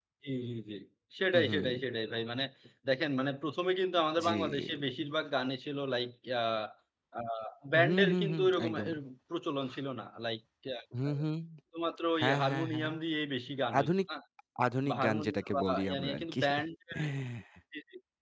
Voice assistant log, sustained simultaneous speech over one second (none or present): present